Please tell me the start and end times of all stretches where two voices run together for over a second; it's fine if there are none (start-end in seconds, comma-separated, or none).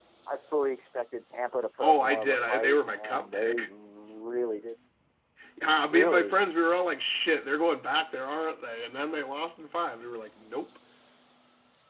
1.8-3.7